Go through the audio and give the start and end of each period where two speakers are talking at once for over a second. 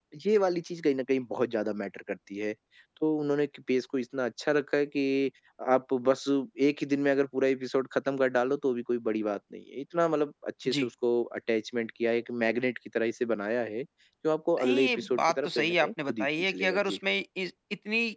14.6-17.0

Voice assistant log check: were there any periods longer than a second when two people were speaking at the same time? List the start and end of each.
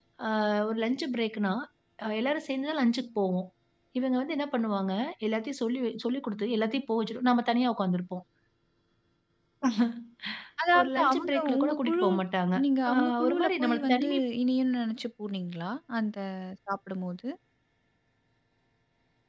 10.8-12.0, 12.9-14.2

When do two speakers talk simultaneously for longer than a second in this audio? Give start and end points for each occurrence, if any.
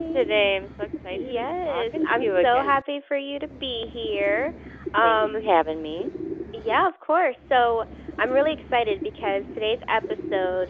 1.1-2.7

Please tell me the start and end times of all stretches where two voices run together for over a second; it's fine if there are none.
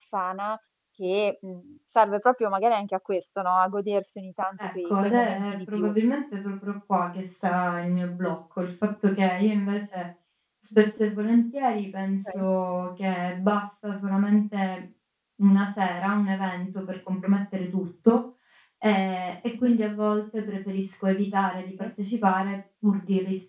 4.6-5.9

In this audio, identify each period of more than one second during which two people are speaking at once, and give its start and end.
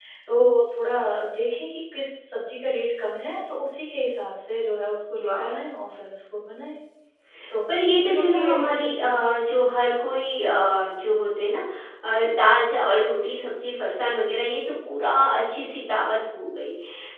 7.9-9.2

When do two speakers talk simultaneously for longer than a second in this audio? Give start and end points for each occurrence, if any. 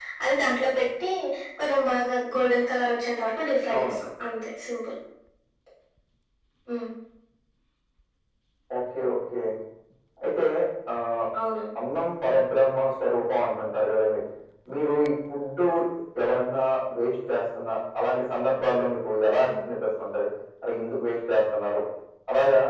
none

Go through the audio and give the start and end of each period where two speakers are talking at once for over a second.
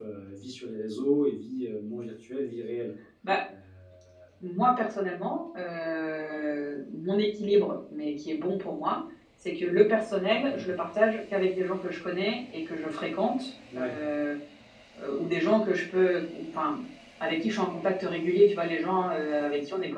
none

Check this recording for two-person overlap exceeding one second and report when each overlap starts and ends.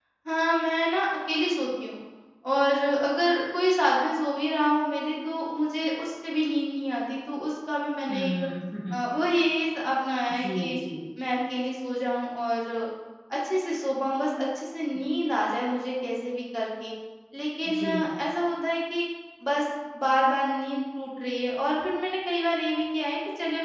none

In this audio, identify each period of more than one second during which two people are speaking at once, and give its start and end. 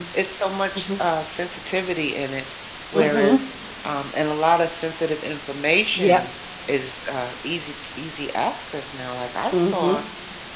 none

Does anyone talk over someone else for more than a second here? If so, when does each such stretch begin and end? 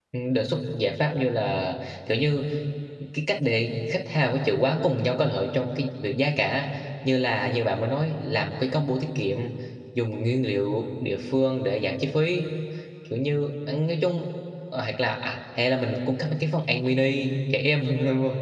none

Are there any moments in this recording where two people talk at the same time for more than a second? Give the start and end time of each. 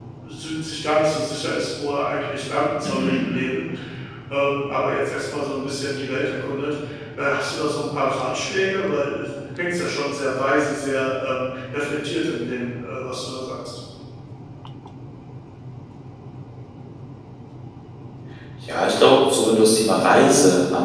none

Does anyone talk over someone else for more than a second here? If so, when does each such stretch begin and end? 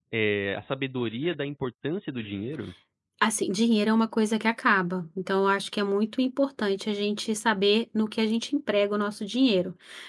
none

